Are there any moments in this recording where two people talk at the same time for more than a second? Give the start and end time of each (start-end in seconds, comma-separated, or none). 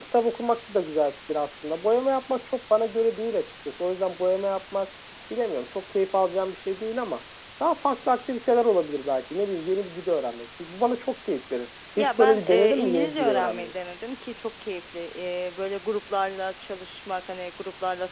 12.0-13.7